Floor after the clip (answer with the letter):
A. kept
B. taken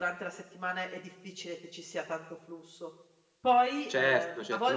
B